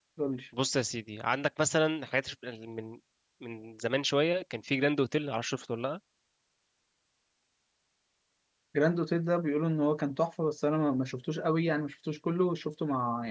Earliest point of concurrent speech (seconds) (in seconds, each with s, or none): none